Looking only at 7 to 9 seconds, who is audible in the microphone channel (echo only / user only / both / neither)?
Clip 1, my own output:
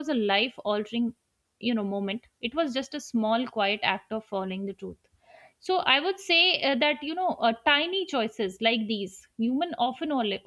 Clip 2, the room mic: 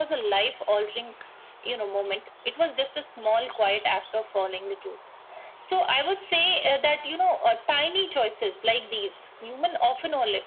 echo only